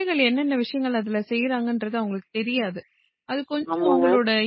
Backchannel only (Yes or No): Yes